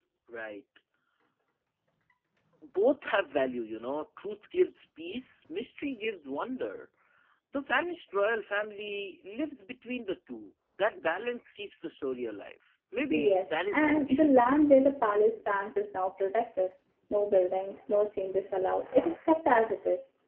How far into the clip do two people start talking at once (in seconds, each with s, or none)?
13.1 s